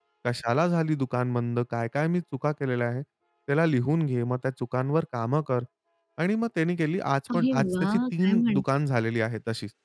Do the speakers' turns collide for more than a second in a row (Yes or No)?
Yes